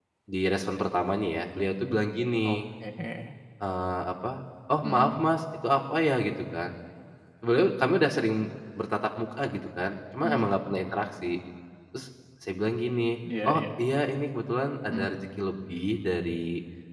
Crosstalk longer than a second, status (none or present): none